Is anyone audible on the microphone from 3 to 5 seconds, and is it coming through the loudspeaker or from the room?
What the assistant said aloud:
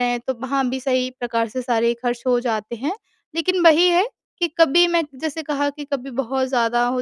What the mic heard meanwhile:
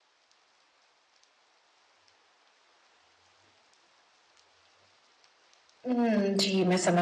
neither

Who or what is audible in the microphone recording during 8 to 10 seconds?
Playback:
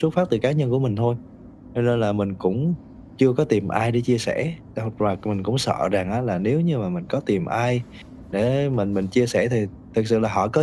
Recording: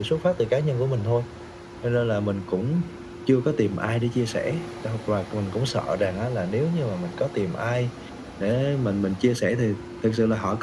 echo only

